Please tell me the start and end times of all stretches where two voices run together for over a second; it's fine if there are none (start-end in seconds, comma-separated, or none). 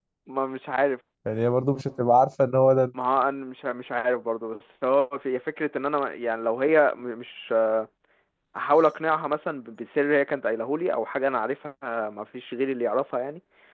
none